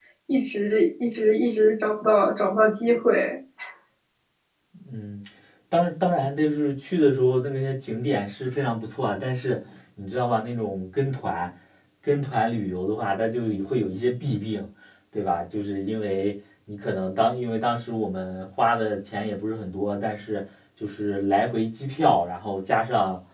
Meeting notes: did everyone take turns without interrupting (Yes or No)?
Yes